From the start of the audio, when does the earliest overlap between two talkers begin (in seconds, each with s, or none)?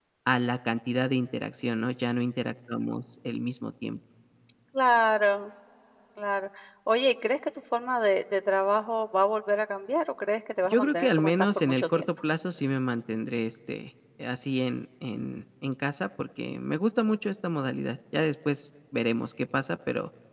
10.6 s